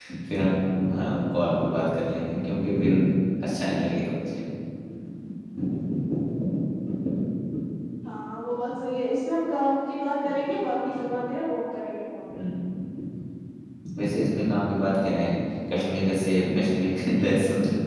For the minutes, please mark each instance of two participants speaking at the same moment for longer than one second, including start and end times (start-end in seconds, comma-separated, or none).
none